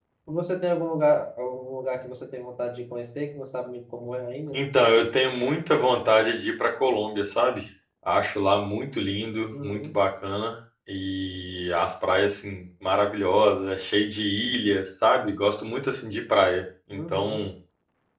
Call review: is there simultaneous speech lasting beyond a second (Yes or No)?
No